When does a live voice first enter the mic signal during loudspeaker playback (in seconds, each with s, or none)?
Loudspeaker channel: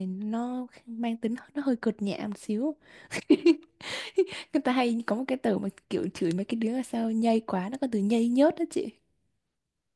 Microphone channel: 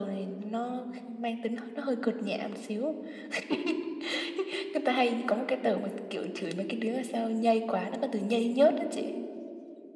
none